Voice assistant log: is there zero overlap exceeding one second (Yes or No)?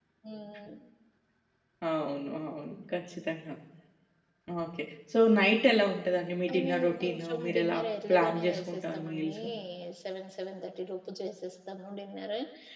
No